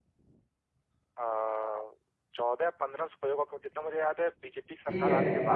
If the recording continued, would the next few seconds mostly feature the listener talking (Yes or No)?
Yes